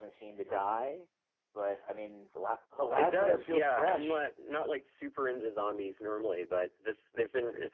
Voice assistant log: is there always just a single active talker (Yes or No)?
No